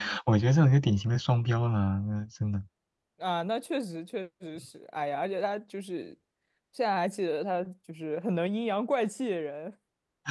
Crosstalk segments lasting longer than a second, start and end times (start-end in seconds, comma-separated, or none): none